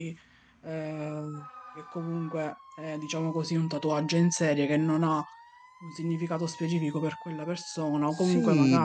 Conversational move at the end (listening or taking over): taking over